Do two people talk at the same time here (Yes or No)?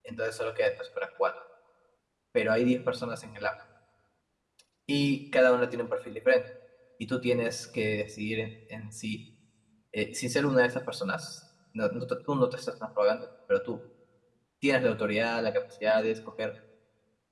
No